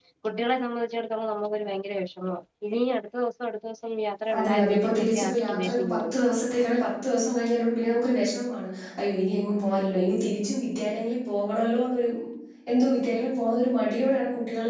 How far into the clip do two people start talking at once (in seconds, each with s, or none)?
4.3 s